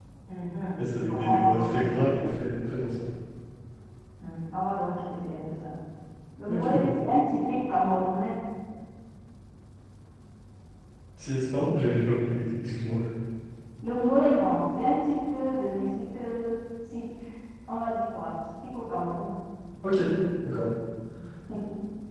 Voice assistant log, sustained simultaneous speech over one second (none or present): present